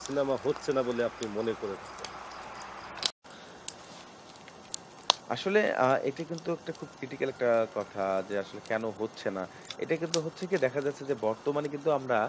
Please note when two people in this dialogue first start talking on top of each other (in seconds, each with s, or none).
none